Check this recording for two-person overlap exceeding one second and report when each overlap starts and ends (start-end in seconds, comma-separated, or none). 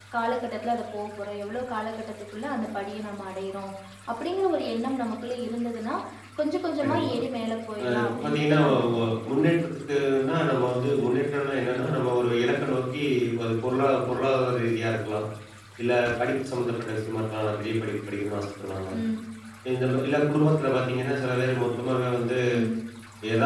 7.8-9.1